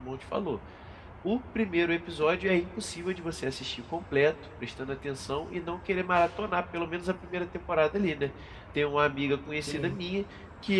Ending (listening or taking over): listening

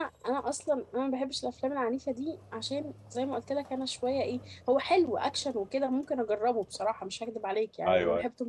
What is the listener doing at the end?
listening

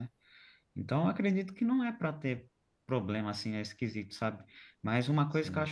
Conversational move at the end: listening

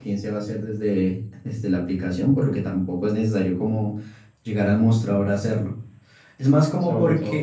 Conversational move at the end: taking over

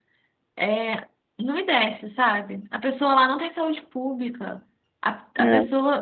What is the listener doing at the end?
listening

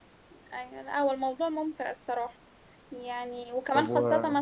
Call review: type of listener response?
listening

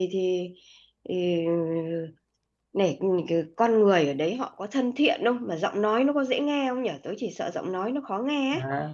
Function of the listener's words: taking over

